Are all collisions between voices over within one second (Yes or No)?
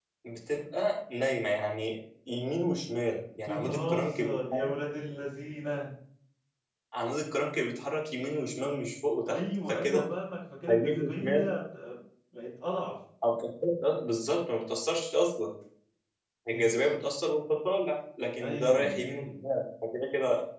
No